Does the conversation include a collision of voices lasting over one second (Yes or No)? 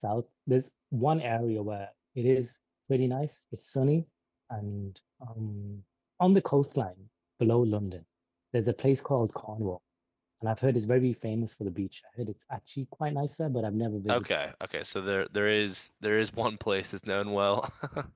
No